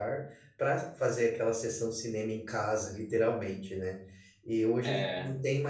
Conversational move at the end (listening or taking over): listening